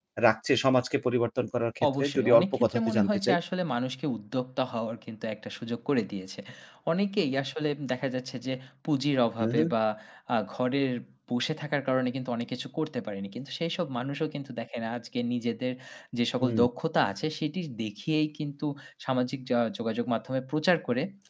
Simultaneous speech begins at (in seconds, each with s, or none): 2.0 s